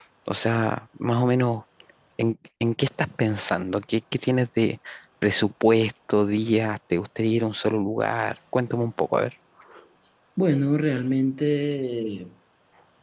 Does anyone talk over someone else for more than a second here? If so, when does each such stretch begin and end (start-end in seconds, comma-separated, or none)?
none